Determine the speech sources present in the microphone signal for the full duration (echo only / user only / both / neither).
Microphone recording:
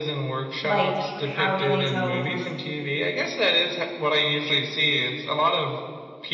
both